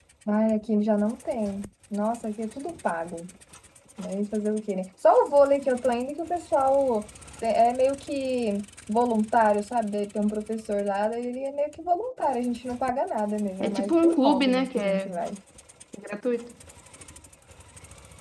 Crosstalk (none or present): present